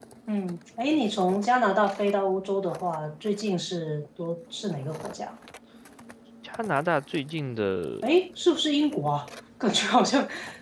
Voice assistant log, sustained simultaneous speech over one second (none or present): none